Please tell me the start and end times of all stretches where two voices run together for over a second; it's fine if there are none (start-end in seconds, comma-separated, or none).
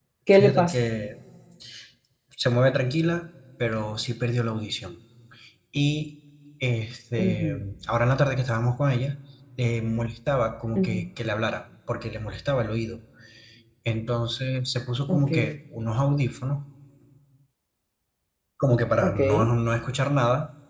none